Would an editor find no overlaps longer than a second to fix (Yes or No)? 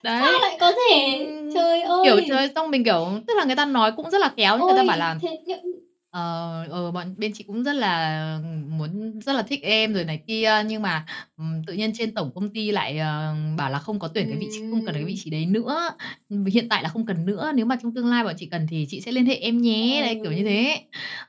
No